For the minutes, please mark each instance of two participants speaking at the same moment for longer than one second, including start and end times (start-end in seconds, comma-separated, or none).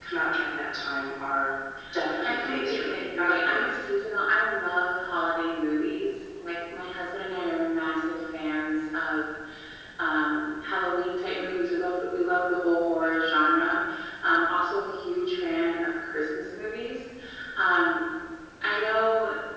2.2-3.6